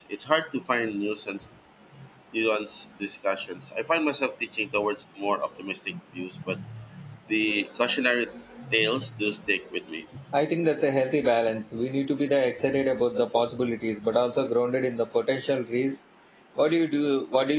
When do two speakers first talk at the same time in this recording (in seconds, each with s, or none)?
none